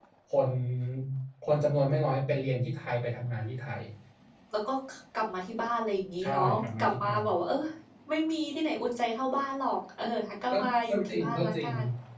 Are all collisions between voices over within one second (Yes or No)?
No